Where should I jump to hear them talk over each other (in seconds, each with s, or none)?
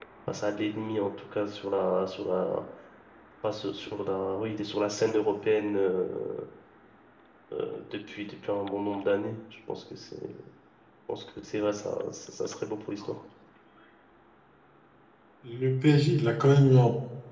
none